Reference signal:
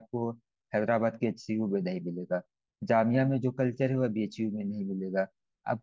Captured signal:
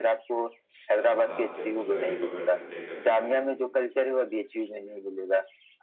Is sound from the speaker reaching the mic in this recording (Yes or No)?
Yes